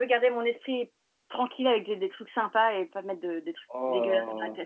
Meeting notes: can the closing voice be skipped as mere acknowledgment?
No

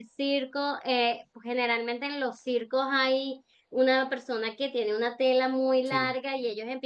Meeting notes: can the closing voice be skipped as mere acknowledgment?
Yes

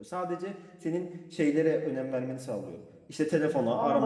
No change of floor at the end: Yes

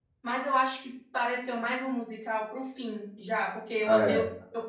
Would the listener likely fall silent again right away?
Yes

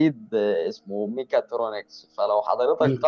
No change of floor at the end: Yes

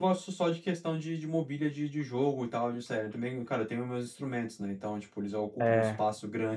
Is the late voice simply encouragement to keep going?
Yes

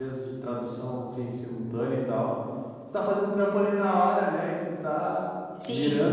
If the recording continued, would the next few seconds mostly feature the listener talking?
No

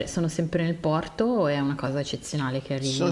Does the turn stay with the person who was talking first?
No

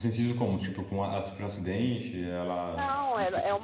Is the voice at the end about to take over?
Yes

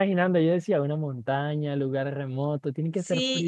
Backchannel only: No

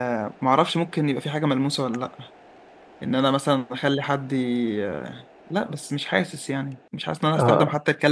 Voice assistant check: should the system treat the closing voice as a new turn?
No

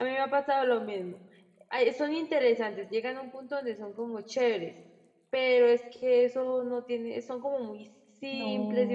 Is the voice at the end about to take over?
No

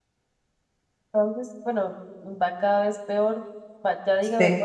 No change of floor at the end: Yes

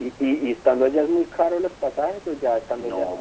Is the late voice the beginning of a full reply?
Yes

